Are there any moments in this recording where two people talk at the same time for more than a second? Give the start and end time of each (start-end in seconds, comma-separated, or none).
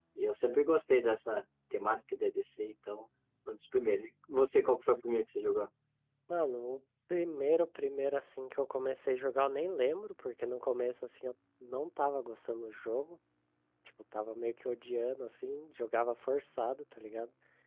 none